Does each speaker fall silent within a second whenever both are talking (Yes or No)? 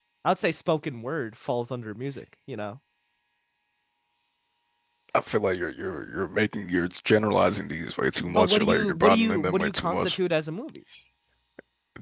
No